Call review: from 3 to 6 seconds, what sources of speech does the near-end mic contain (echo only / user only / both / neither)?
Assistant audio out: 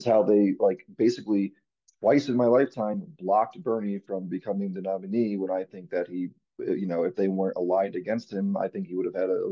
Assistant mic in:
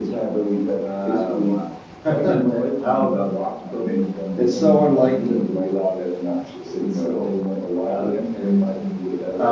both